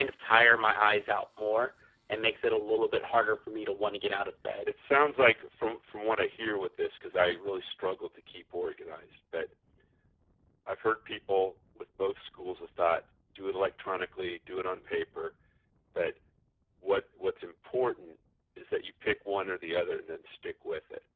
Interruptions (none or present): none